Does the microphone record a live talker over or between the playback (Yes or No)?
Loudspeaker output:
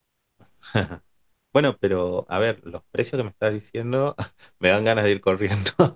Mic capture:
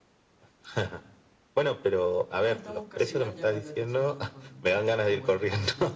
Yes